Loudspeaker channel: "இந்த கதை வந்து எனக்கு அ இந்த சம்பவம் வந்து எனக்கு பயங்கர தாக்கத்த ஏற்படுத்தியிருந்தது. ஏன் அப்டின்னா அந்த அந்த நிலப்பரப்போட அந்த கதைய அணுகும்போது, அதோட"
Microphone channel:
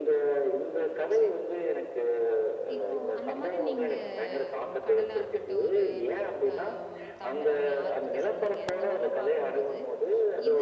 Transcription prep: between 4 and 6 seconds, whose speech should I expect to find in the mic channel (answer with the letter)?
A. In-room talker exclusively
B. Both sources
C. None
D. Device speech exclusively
B